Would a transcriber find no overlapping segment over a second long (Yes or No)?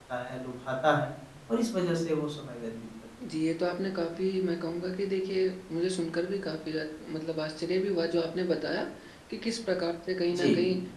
Yes